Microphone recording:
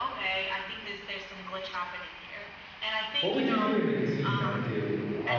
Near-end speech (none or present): present